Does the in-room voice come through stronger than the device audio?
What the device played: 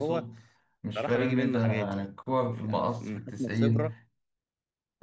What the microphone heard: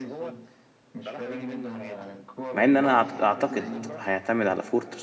Yes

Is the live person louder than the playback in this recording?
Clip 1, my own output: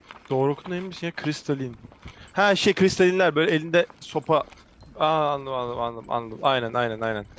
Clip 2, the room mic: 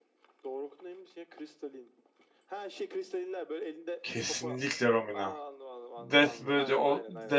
Yes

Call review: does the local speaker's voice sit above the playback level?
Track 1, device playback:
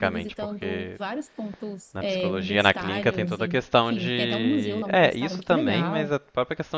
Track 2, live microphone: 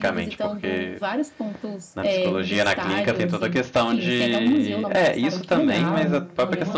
No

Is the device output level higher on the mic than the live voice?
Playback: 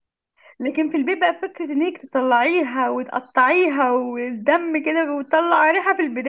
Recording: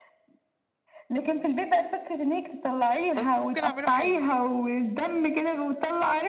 Yes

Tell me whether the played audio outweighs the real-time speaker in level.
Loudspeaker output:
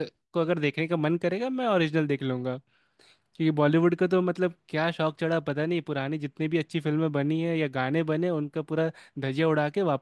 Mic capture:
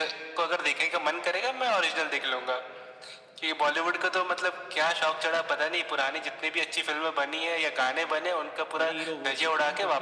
Yes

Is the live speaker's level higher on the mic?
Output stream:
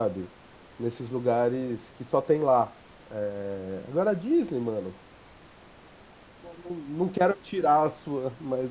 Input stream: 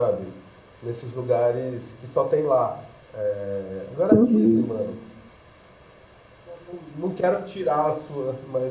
Yes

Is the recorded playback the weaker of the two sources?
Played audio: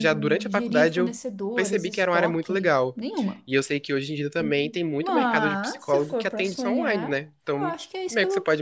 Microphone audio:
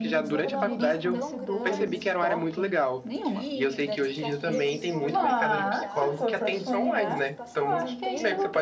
No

